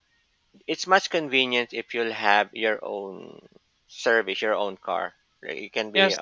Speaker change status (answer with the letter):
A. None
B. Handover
B